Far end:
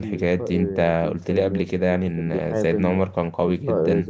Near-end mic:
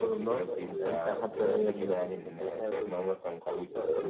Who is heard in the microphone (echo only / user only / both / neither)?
both